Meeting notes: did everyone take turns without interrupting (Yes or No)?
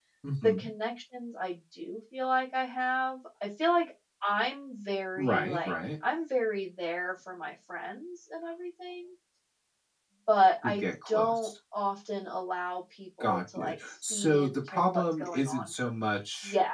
No